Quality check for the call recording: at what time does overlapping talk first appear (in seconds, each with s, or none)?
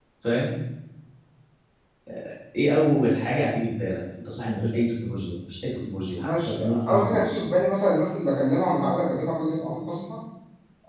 6.2 s